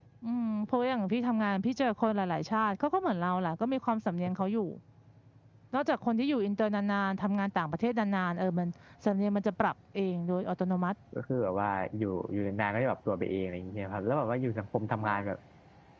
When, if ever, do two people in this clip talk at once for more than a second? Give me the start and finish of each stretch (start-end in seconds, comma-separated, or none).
none